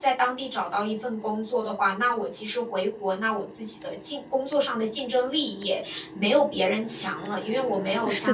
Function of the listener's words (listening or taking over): listening